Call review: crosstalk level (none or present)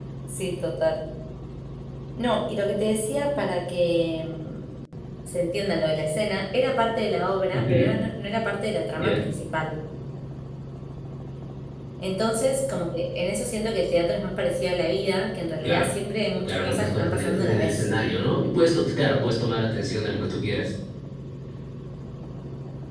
present